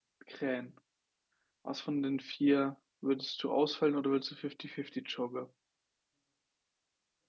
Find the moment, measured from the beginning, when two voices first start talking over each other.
none

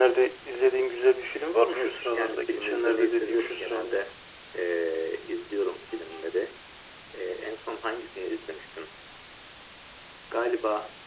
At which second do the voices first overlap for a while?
1.7 s

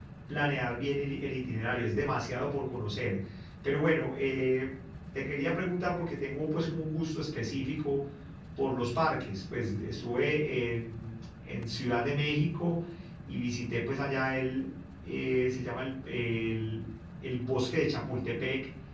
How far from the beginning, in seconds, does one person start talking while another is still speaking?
none

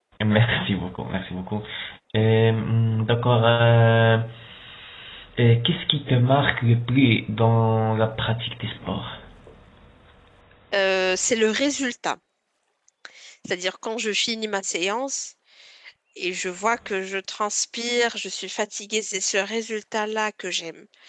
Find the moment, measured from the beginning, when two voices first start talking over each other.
none

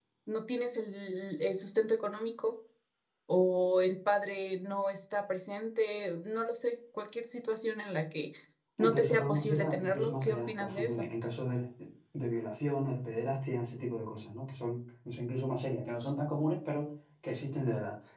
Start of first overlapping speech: 8.8 s

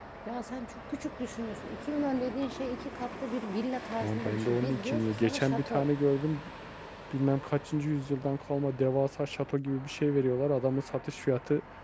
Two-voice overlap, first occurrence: 3.9 s

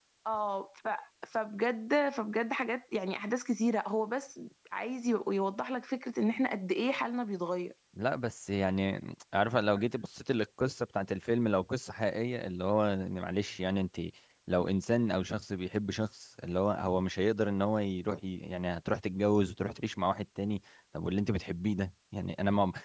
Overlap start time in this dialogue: none

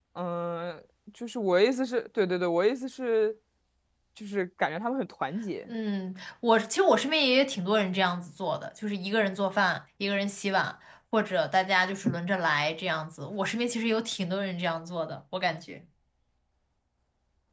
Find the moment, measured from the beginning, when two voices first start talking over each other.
none

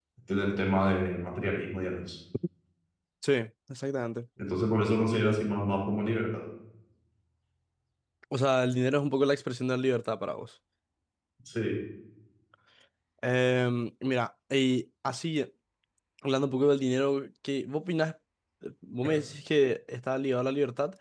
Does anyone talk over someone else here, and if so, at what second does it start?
none

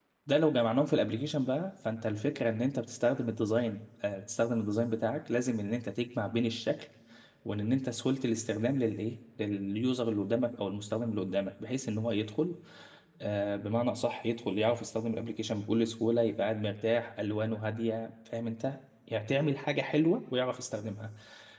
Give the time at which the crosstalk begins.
none

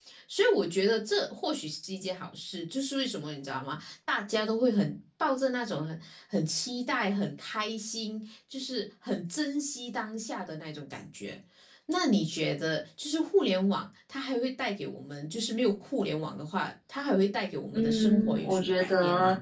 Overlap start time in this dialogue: 17.7 s

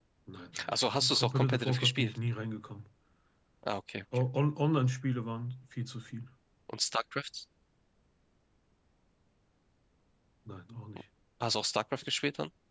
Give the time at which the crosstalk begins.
0.6 s

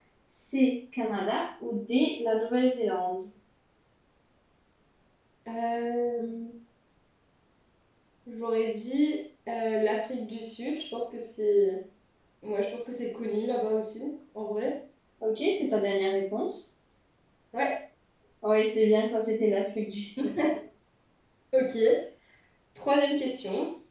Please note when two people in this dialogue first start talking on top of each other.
none

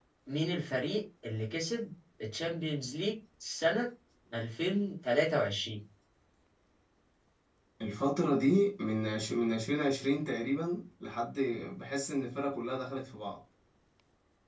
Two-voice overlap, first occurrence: none

